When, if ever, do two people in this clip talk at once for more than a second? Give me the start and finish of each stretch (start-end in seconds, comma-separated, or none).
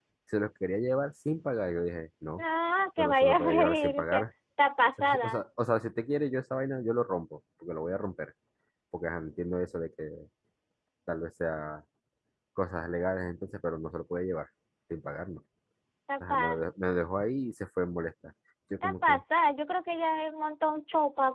3.0-4.2